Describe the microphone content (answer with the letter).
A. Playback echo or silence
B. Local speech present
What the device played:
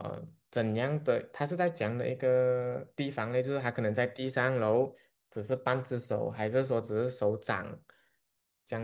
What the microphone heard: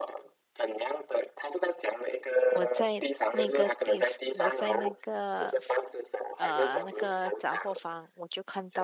B